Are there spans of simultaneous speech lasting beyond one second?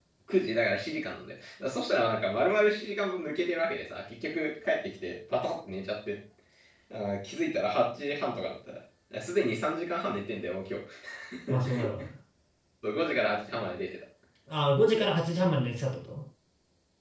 No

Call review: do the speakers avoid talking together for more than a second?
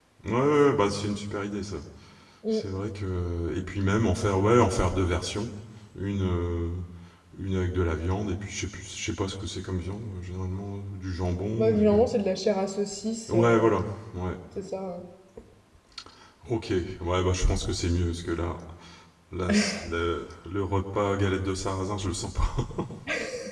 Yes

